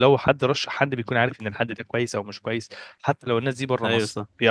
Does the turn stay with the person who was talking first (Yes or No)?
Yes